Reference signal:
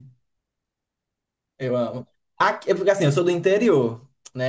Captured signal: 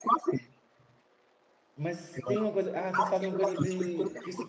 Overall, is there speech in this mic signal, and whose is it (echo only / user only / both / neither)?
both